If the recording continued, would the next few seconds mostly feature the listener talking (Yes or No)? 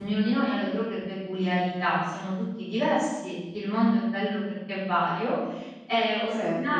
No